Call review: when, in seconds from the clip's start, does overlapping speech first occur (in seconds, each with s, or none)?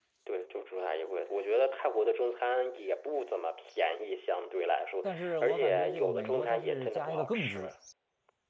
5.0 s